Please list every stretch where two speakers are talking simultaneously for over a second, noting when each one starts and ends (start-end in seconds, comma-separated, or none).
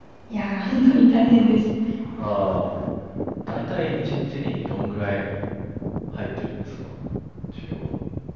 none